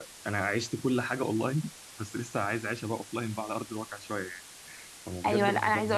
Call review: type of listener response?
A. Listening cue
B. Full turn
B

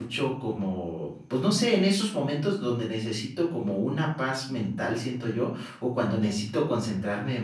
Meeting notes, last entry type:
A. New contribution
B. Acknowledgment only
B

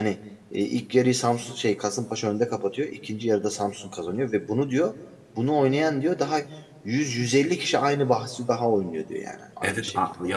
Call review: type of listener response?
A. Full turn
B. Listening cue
A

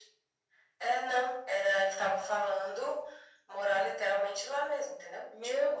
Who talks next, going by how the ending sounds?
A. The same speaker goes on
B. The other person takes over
B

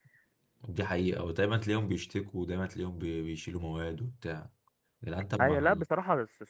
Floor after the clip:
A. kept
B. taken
B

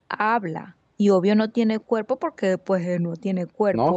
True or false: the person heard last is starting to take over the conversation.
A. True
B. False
A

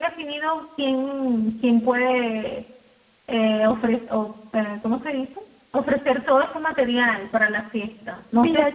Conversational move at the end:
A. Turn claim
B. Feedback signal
A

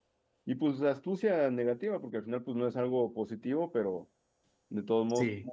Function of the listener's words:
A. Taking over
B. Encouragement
B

